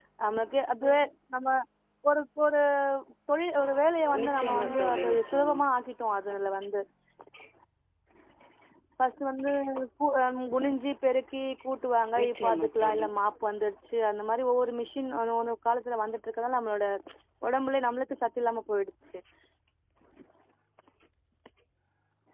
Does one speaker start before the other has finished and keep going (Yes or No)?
Yes